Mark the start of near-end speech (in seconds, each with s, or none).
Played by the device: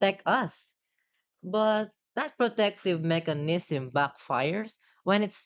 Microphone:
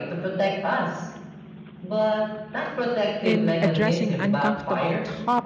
3.2 s